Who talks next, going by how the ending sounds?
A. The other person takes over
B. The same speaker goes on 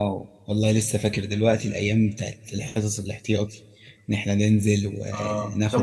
A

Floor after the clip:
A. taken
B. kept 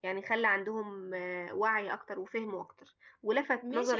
B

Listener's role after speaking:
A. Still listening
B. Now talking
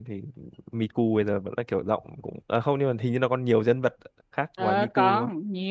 B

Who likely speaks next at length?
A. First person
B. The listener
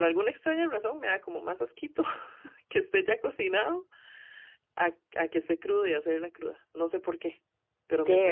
A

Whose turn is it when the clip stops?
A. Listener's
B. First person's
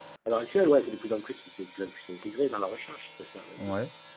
B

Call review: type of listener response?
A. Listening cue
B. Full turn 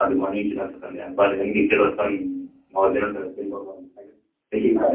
B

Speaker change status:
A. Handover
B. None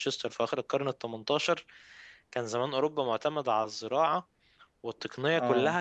B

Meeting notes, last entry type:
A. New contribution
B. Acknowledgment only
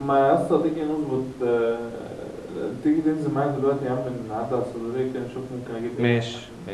A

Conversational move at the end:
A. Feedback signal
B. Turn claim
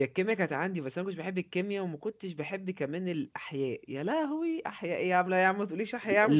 B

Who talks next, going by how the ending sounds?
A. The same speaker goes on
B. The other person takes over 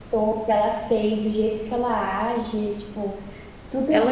B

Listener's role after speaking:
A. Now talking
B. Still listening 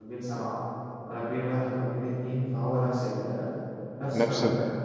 A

